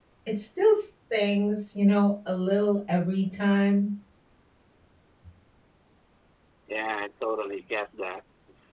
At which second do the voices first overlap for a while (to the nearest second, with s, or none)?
none